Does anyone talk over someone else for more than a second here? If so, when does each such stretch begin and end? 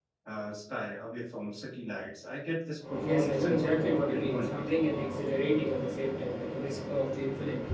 3.1-4.6

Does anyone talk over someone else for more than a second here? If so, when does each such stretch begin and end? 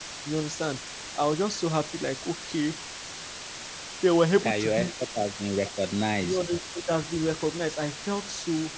none

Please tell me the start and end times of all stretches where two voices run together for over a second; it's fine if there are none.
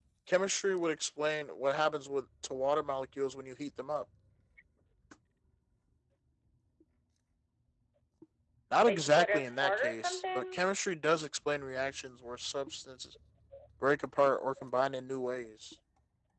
8.9-10.6

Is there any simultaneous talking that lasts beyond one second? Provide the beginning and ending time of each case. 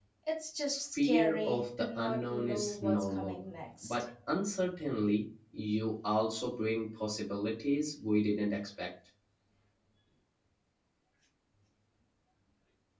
0.9-3.4

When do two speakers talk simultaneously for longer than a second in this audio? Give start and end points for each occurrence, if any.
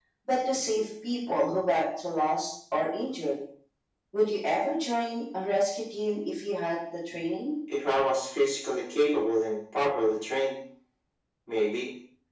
none

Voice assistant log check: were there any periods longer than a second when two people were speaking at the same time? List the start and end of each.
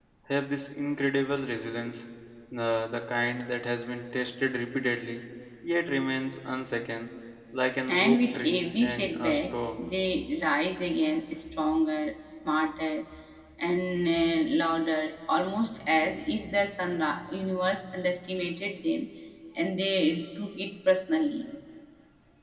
7.9-9.9

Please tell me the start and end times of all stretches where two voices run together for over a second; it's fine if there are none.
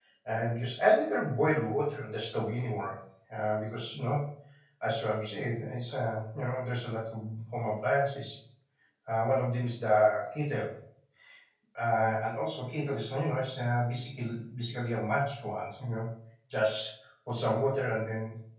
none

